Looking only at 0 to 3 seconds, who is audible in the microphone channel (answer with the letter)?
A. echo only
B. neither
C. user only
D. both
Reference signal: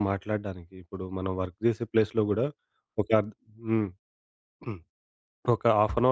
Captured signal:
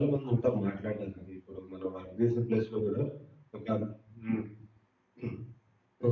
A